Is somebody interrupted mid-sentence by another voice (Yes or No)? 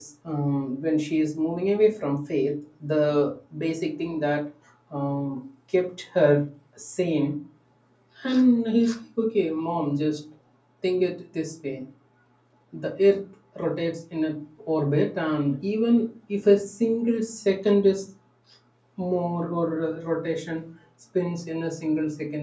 No